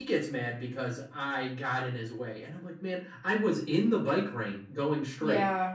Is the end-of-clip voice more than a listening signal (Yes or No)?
No